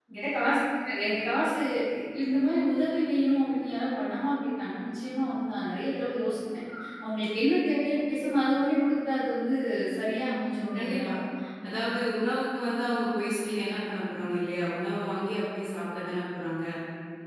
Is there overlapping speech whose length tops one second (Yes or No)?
No